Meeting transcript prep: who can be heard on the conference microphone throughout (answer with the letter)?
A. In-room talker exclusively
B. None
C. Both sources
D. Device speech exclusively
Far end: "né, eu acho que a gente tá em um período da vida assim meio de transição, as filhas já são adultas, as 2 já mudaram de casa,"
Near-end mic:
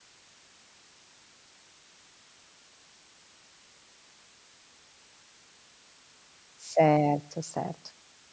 A